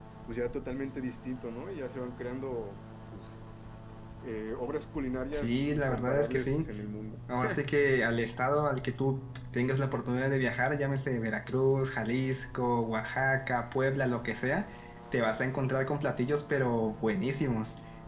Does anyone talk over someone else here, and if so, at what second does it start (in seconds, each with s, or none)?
5.3 s